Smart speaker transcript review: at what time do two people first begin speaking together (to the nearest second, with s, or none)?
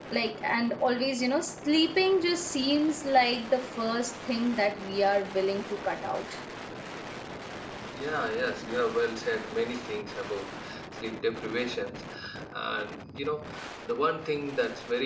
none